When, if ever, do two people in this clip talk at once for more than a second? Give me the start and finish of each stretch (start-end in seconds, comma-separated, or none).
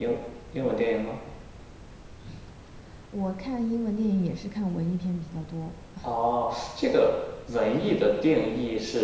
none